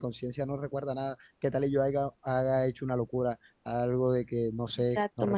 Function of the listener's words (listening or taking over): taking over